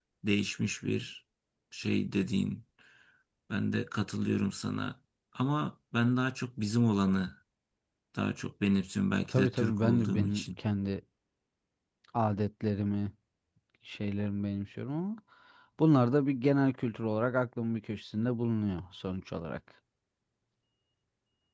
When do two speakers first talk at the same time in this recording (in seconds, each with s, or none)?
9.3 s